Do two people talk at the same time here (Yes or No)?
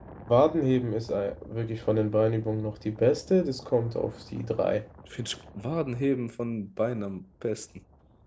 No